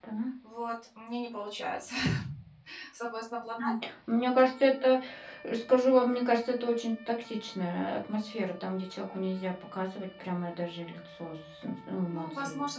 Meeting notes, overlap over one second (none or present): none